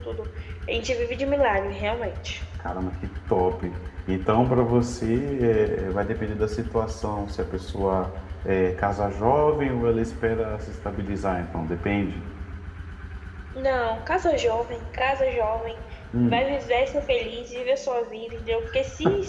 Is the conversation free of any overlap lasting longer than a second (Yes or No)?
Yes